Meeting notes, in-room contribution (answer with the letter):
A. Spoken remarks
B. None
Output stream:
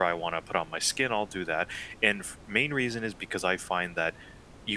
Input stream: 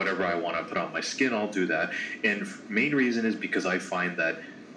B